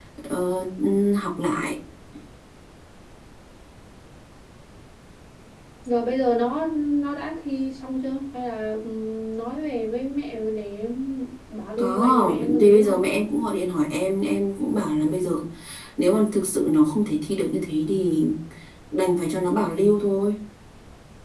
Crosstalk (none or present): present